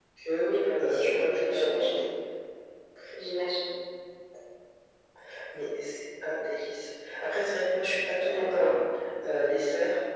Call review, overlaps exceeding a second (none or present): present